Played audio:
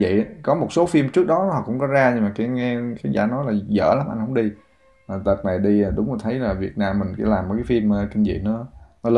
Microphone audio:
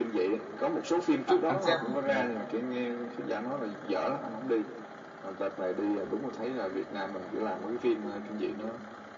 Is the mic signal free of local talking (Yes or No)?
No